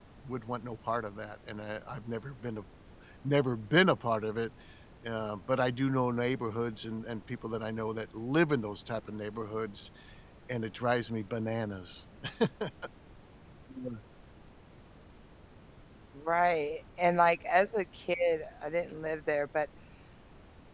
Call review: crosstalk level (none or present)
none